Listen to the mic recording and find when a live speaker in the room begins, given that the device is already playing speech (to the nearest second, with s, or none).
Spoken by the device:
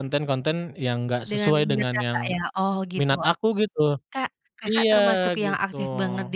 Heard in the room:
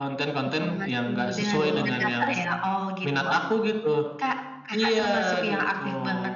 0 s